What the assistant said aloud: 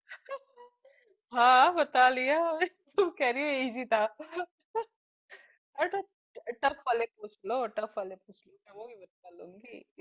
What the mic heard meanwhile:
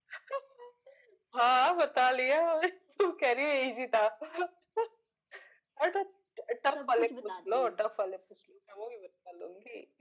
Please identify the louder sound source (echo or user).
echo